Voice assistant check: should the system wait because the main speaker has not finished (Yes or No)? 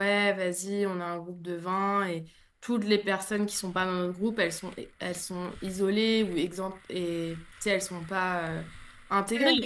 Yes